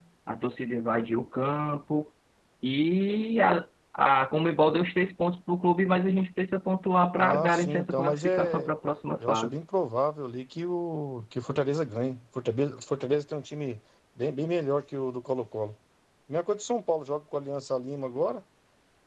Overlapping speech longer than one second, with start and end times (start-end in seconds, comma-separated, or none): 7.2-8.7